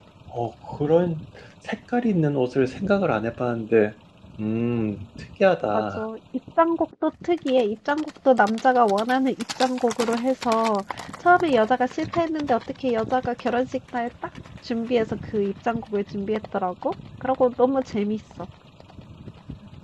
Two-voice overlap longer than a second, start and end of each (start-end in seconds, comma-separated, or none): none